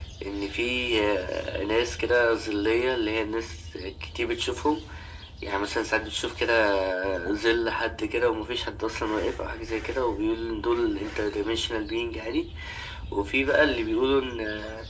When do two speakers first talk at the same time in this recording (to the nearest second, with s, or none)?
none